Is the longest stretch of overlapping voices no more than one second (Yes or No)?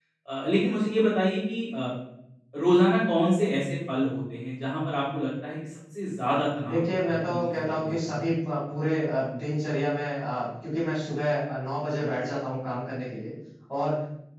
No